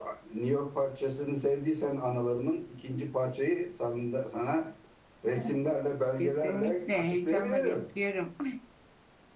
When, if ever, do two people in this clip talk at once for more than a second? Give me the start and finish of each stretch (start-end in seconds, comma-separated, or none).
6.2-7.8